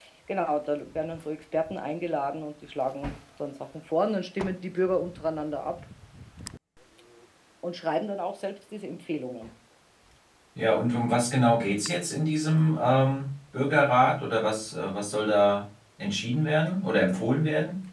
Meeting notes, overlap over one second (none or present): none